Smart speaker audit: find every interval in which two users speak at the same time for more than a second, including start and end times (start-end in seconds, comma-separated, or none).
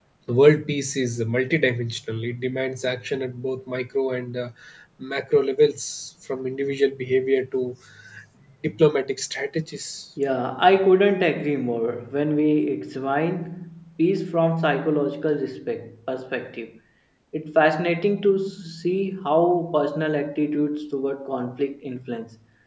none